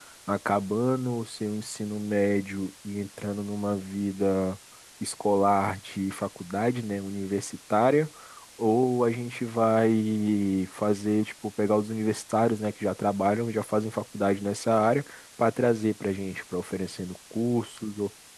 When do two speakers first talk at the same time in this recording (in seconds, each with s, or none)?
none